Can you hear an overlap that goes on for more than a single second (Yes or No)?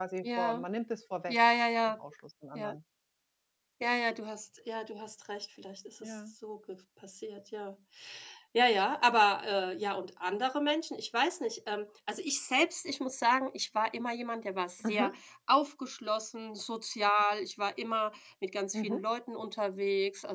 No